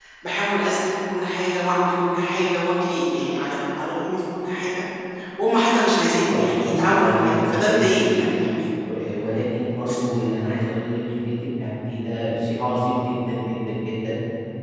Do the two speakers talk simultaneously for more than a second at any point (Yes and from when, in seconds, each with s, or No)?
Yes, from 6.3 s